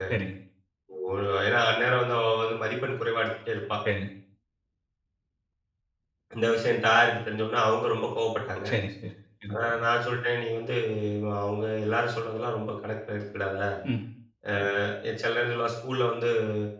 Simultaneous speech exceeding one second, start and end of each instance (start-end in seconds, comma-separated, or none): none